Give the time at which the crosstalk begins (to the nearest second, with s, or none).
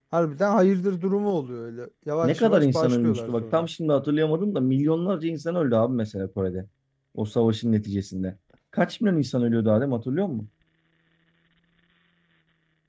2 s